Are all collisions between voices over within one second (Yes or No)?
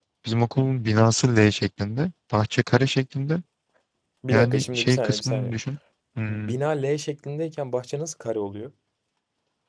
No